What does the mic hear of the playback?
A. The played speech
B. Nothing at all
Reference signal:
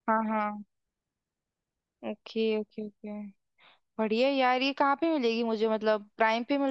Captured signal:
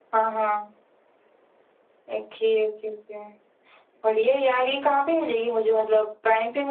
A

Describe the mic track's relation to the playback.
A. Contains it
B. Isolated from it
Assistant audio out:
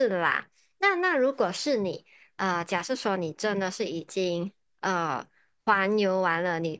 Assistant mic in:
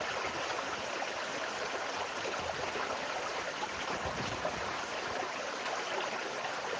B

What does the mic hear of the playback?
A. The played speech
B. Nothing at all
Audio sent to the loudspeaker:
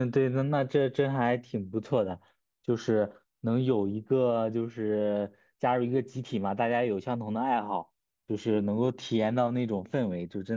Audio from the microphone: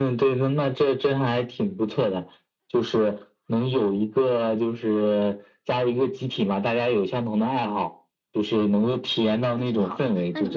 A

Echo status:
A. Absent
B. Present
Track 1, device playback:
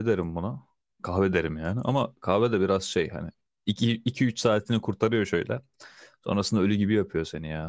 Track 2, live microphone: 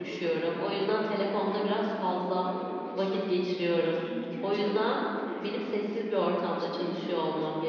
B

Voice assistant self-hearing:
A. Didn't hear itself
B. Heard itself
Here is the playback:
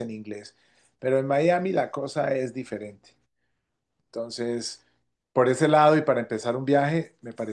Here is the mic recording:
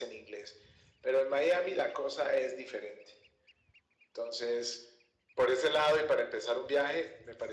B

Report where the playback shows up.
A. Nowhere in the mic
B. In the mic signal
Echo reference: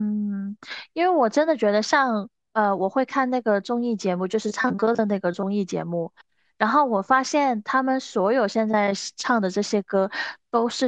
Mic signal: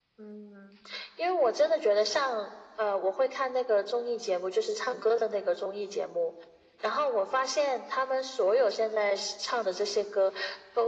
B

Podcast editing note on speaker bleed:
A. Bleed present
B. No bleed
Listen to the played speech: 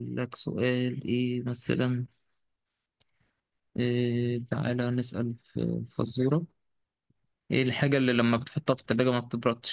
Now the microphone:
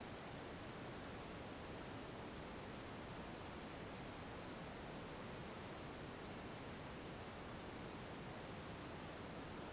B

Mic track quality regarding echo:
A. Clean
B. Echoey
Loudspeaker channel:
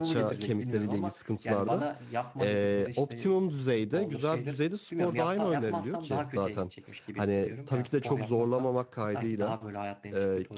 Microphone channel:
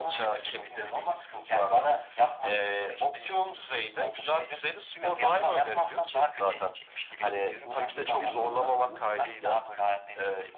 B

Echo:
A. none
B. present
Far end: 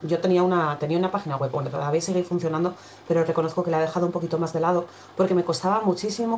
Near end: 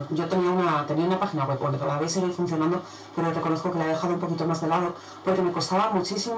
B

